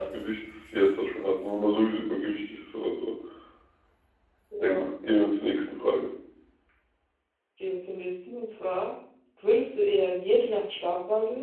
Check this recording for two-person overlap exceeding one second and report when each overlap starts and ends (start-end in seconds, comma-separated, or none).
none